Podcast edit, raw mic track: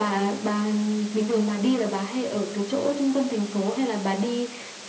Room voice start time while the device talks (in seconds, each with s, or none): none